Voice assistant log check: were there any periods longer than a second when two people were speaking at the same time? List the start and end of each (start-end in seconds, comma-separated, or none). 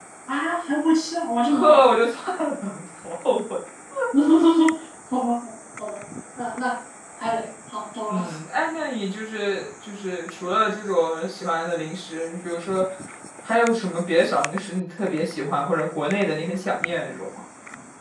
none